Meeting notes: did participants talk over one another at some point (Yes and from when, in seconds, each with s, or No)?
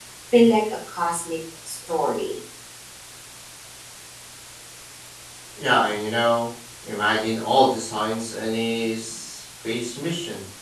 No